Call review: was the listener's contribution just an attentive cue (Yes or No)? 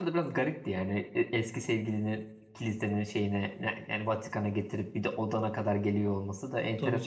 No